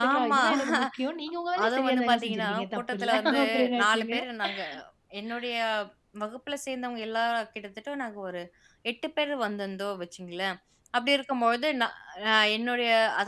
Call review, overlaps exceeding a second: present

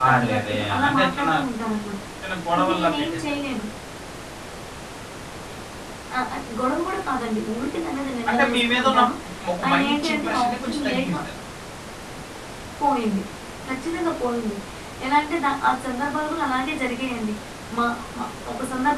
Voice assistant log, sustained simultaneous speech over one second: present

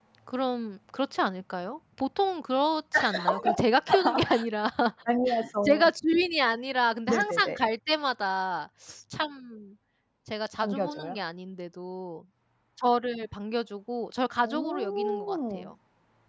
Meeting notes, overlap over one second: present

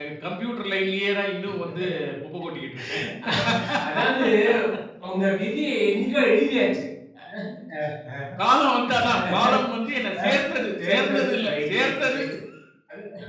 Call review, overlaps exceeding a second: present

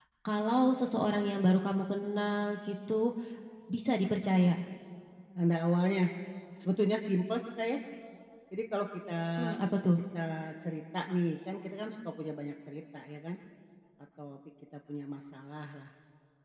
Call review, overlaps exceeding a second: none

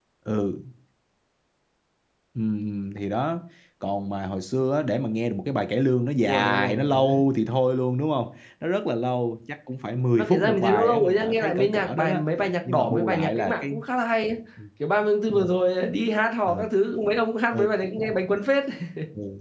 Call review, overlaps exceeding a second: present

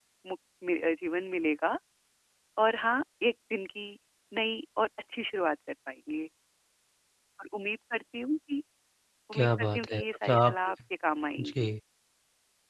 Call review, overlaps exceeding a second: present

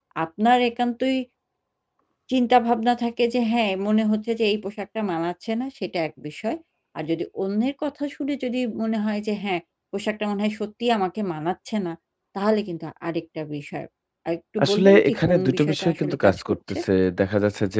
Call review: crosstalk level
present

